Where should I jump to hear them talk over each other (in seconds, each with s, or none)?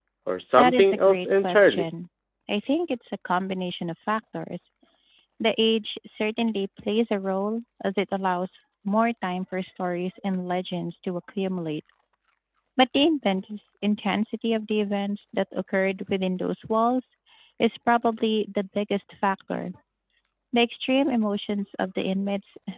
0.6 s